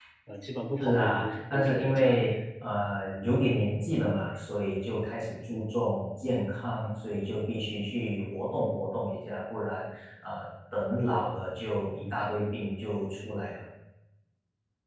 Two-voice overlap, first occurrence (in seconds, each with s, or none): 0.8 s